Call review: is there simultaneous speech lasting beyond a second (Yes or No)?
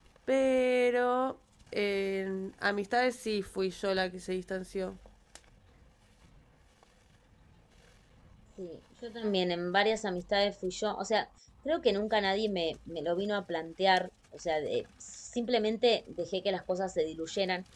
No